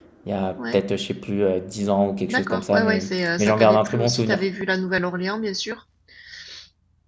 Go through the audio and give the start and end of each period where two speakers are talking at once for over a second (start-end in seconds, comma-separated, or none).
2.3-4.4